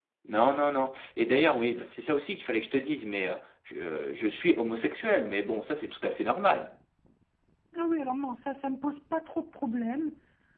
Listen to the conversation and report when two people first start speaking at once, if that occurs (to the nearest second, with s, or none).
none